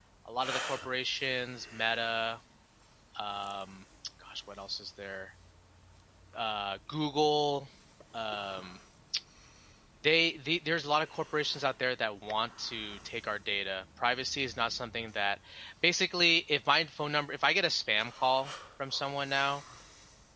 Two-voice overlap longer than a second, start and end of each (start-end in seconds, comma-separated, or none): none